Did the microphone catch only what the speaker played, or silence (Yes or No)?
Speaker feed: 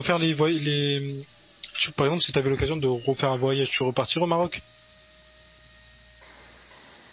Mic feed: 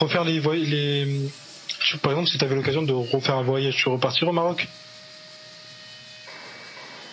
Yes